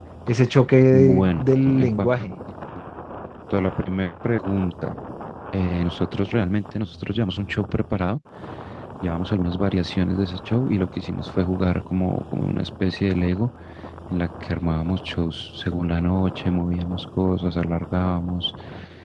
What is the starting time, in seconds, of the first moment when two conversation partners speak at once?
0.9 s

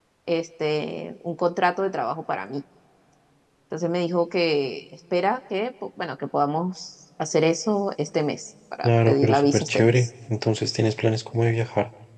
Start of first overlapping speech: 8.8 s

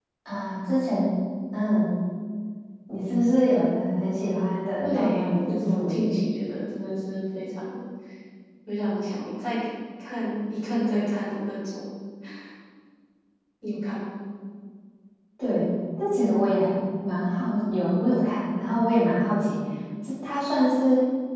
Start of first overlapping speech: 4.8 s

